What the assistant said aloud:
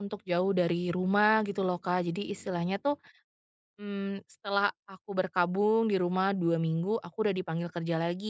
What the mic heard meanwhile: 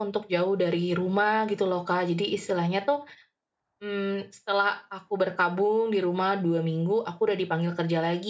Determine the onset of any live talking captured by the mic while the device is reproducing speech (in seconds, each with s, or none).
none